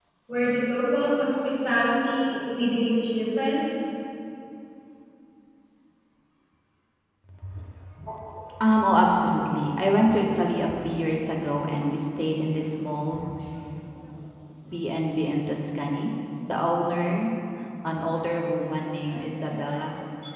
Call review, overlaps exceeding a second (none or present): none